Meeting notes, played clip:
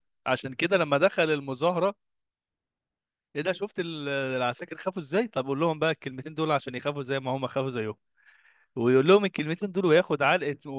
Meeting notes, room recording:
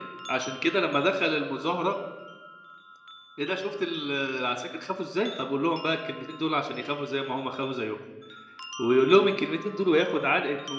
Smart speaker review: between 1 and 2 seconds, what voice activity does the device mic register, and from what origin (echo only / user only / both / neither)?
echo only